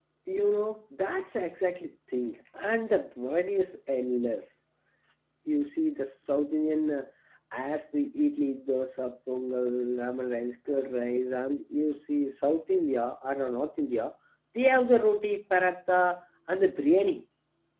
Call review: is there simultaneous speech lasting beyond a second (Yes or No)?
No